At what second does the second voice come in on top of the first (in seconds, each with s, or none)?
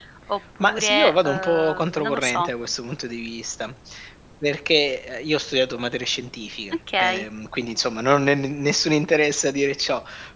0.6 s